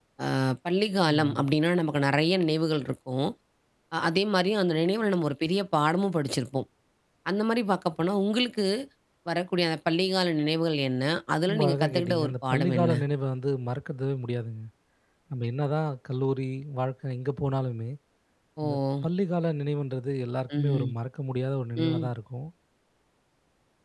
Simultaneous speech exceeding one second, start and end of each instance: 11.5-12.9

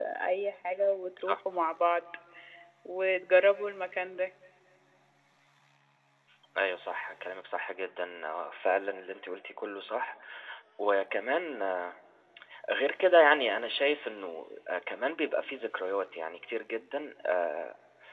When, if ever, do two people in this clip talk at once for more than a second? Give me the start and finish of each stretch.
none

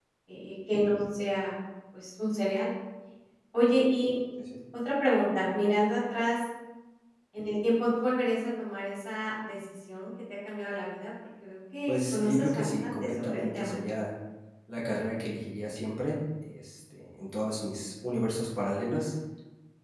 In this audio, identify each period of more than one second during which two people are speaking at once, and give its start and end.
11.9-13.8

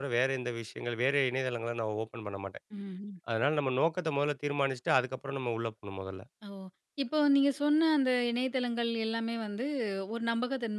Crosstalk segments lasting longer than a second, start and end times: none

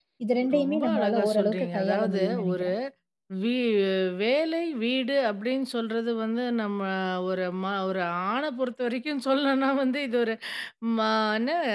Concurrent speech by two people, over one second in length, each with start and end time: 0.6-2.7

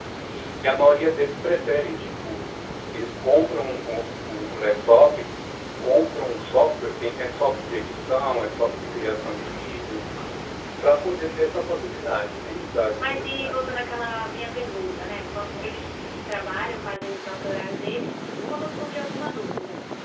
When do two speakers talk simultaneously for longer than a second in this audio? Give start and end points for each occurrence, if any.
12.3-13.5

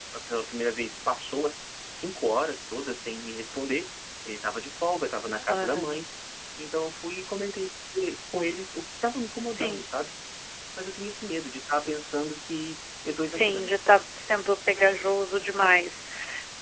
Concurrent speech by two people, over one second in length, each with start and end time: none

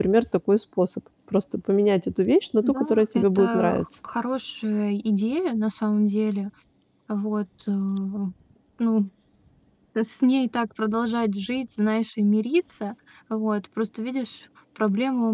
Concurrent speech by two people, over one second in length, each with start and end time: 2.6-3.9

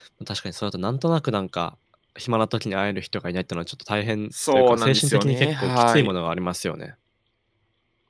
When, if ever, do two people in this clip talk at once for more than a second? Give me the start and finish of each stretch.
4.5-6.1

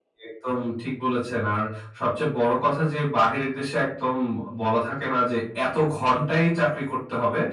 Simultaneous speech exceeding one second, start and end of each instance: none

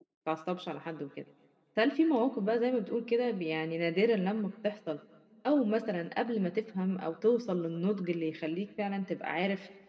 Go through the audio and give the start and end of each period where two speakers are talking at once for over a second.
none

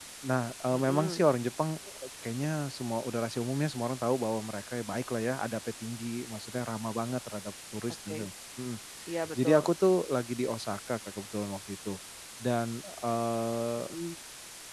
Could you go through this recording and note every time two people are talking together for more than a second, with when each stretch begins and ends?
none

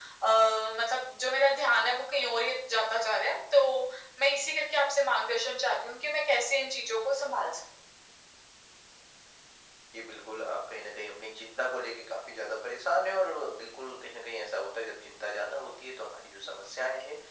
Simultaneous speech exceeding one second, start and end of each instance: none

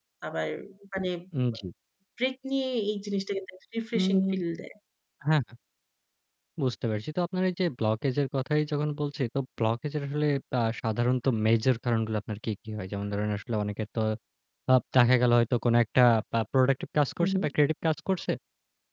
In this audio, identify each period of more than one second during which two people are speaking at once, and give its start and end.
none

